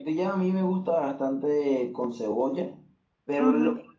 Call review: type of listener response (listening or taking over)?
listening